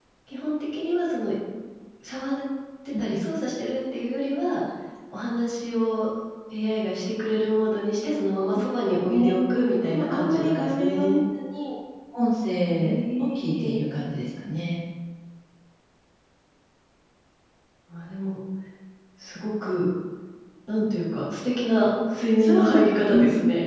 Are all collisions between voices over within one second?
No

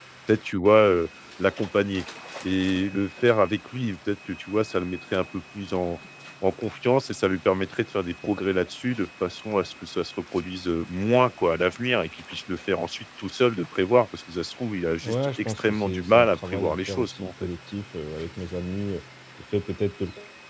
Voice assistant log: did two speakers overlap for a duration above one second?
Yes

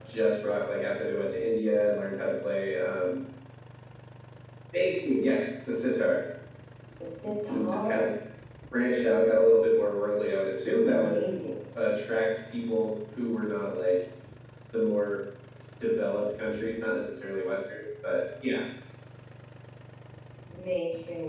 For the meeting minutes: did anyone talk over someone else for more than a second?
No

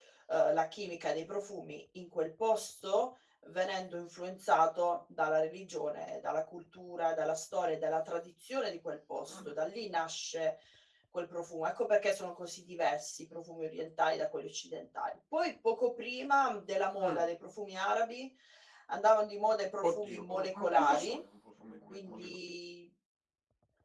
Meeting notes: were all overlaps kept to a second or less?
No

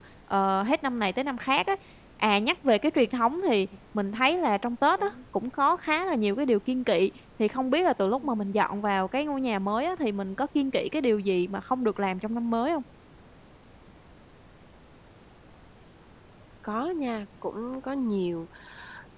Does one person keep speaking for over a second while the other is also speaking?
No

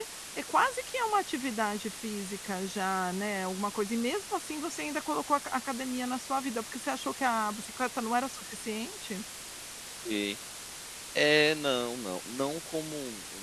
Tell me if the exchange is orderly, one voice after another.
Yes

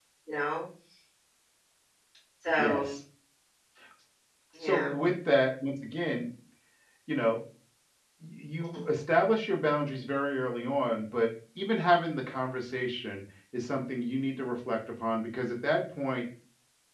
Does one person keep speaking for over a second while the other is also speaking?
No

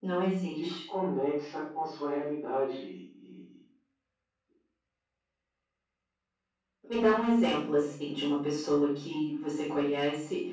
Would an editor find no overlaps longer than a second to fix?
Yes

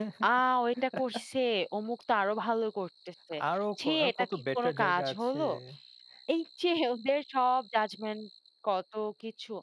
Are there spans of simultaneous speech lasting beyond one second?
Yes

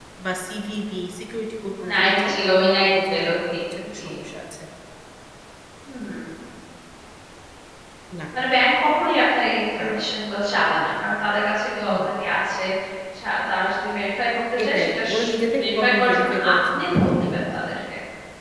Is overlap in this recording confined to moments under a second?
No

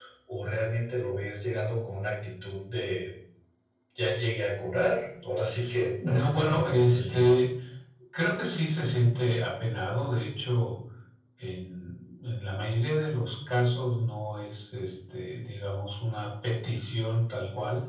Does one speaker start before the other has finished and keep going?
Yes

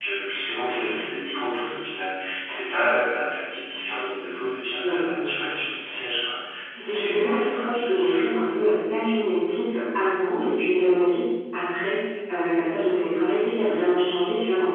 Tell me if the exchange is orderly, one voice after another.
No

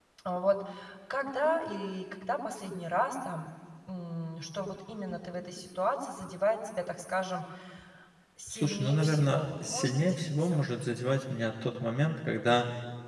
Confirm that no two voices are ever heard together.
No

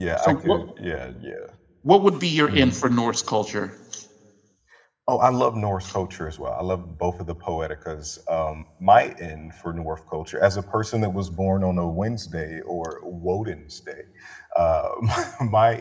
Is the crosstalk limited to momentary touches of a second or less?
Yes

